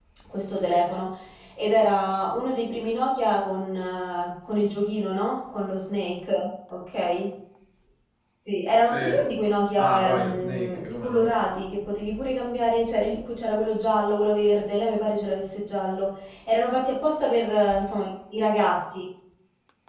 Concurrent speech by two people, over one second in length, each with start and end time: 9.8-11.3

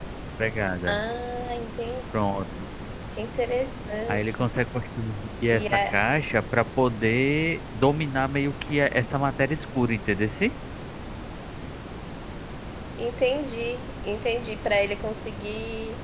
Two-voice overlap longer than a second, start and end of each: none

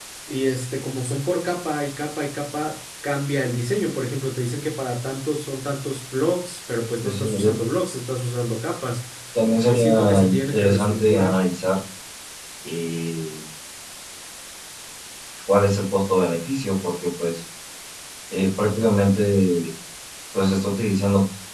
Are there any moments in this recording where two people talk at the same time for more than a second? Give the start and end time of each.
9.7-11.4

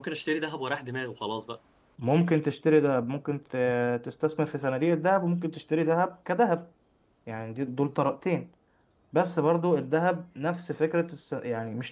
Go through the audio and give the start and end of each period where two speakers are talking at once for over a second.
none

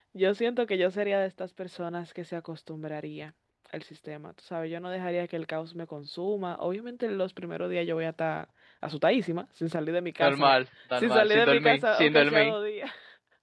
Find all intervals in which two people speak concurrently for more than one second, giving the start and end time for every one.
11.0-12.5

